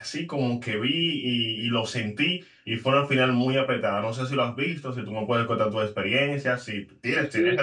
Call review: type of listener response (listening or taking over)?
taking over